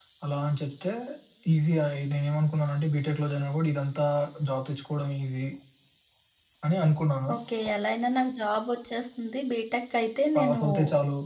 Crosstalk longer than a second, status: none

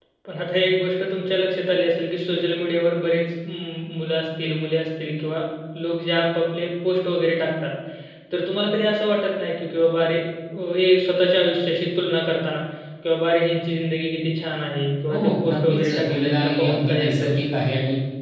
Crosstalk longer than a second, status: present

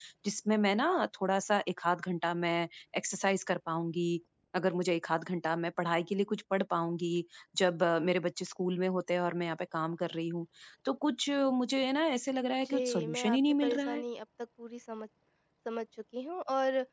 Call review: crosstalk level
present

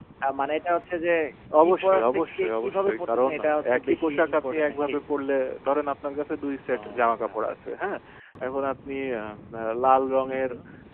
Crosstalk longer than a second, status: present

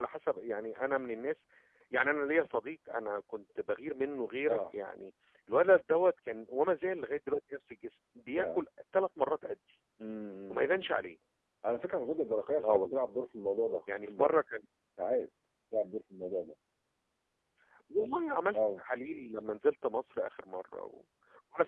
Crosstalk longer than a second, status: none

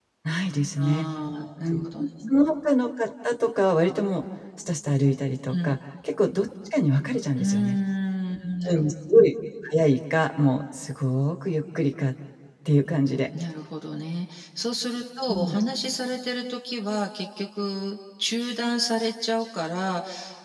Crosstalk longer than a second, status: none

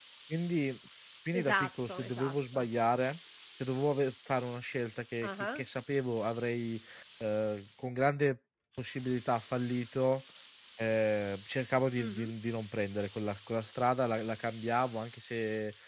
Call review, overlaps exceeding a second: present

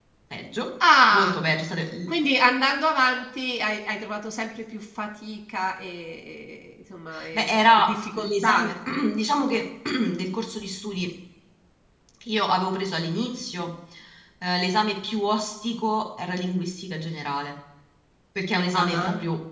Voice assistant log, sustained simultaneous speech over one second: present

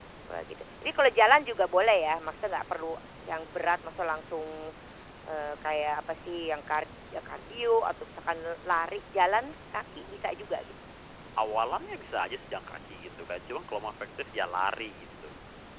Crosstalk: none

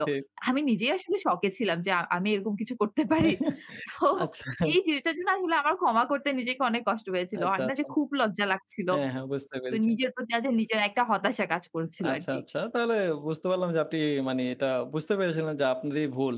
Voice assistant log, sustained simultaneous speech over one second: none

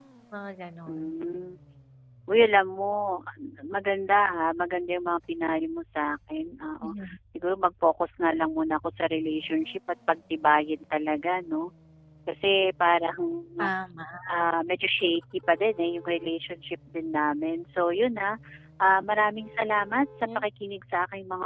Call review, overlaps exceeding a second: none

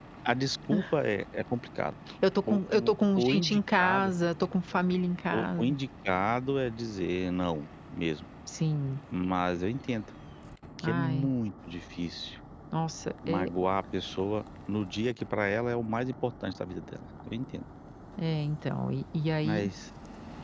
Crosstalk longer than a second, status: present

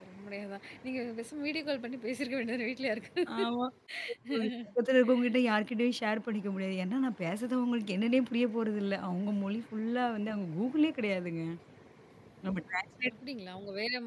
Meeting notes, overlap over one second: none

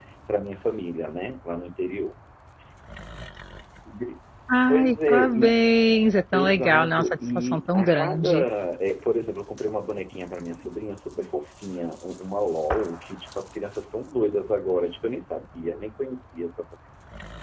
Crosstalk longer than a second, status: present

